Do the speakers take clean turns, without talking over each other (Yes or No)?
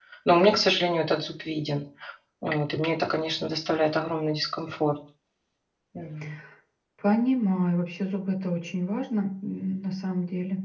Yes